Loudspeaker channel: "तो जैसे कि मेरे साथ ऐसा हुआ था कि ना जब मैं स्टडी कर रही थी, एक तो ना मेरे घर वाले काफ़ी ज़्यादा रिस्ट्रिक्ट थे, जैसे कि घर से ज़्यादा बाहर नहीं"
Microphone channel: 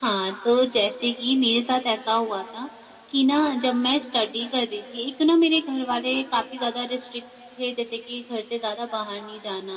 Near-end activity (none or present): none